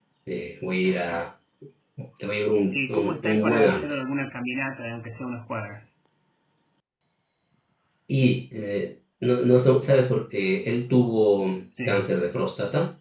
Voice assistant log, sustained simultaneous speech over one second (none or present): present